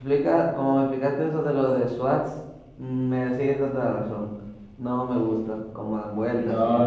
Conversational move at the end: taking over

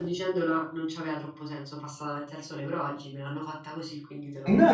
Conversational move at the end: taking over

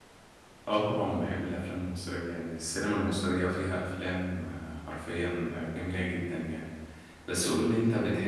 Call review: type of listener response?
listening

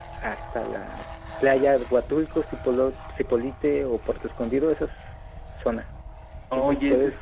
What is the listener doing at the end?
taking over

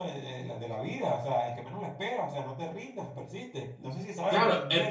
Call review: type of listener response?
taking over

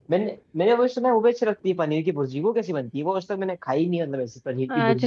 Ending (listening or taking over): taking over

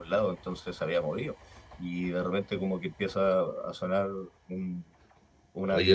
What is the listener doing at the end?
taking over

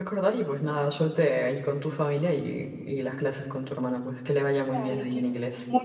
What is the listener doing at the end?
taking over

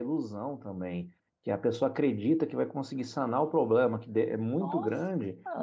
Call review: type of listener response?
listening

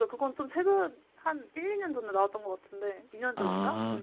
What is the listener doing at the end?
taking over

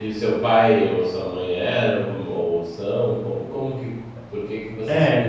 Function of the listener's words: taking over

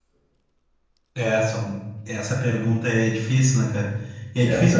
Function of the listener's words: listening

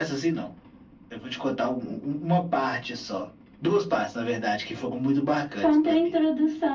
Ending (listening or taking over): taking over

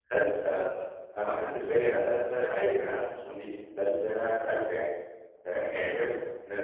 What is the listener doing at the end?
listening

